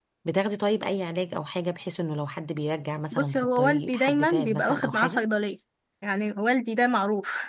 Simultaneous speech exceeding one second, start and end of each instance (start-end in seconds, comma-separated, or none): 3.1-5.2